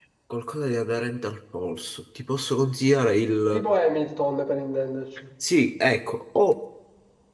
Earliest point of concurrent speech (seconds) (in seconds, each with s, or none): none